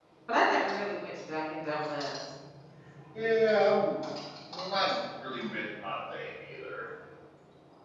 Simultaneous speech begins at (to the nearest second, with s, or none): none